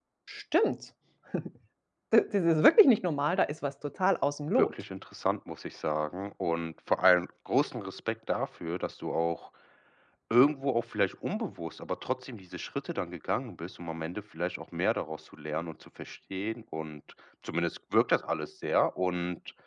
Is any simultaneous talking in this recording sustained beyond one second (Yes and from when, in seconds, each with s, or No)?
No